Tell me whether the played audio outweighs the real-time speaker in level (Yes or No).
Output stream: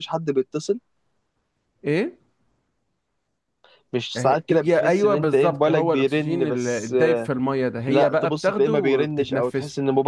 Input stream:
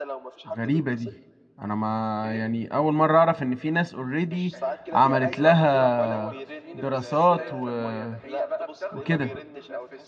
No